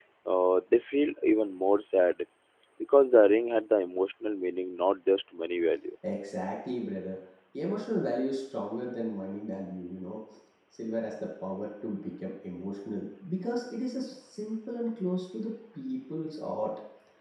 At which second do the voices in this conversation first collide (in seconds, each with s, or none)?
none